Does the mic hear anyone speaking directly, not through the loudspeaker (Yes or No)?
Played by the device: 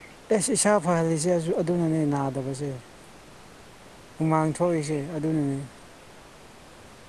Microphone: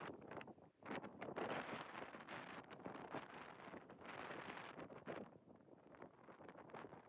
No